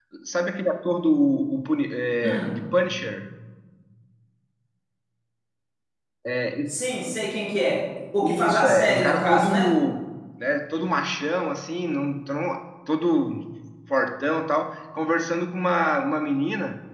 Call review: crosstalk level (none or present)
present